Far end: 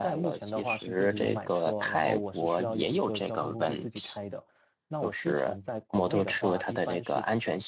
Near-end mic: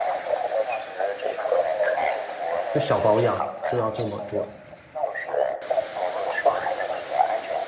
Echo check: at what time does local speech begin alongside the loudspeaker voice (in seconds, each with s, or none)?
2.7 s